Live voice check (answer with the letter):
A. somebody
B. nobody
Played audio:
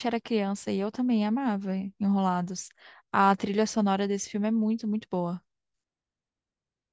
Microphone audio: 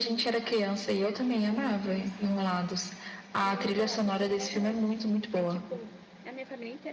A